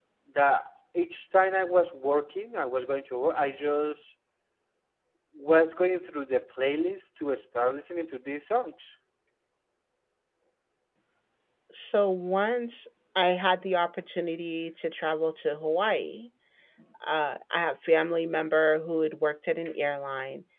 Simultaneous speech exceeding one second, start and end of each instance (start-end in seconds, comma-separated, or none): none